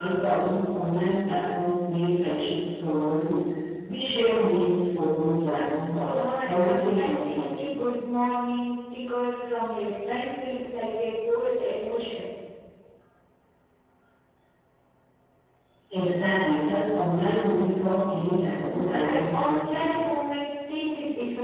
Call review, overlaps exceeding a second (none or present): present